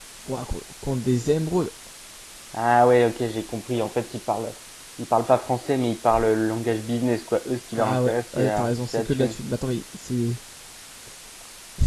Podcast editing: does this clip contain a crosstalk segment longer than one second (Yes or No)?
Yes